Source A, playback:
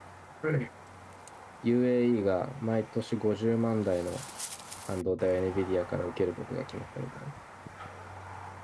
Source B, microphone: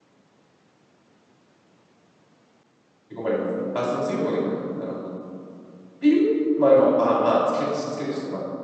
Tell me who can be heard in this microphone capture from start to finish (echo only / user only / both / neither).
user only